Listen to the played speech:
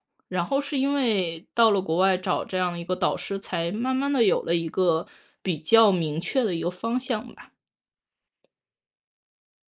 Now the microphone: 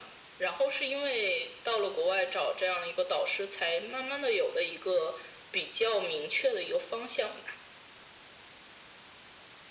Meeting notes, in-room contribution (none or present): none